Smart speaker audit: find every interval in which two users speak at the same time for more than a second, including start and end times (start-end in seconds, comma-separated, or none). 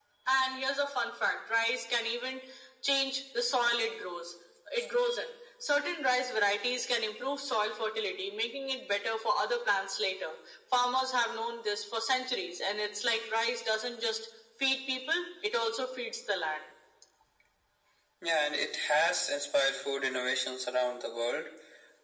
none